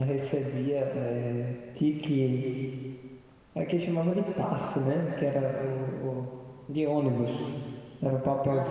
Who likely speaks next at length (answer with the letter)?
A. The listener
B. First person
B